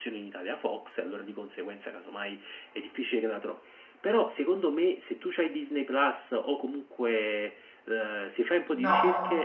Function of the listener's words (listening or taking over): listening